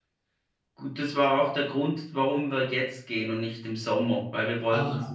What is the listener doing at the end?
listening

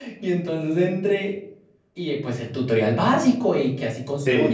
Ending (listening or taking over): listening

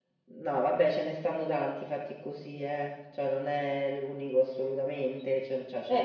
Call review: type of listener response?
taking over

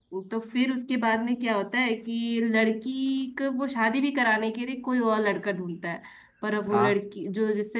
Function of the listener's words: listening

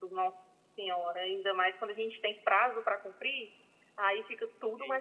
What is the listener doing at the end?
listening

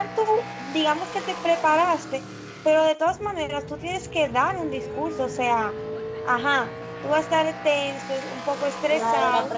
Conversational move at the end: taking over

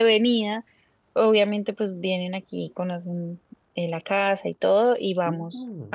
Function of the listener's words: taking over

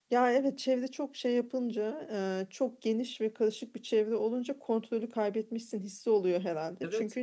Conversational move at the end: listening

